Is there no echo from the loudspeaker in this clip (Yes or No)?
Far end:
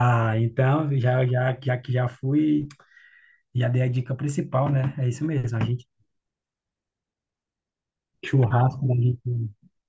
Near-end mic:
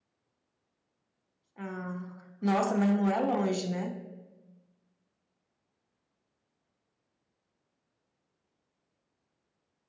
Yes